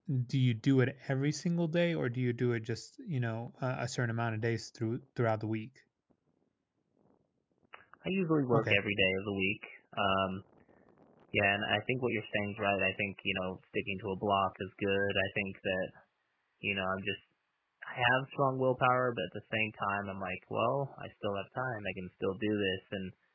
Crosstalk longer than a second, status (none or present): none